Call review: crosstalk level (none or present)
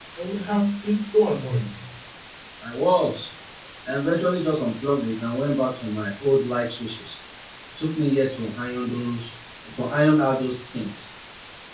none